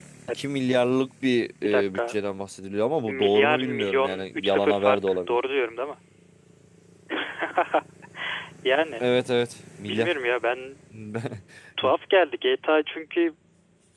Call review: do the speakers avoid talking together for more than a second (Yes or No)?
No